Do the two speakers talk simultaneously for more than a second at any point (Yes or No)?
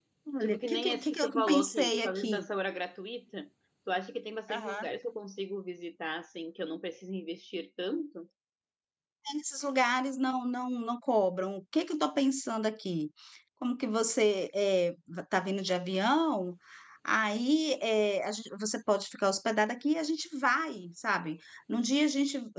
Yes